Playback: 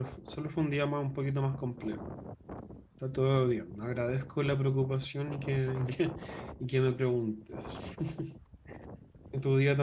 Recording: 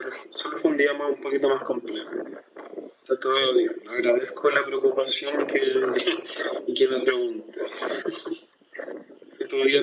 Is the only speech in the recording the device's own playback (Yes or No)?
Yes